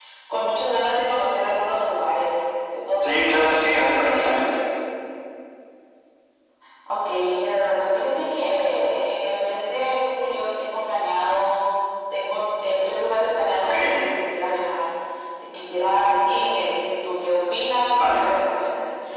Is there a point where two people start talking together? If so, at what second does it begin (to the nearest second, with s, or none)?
3 s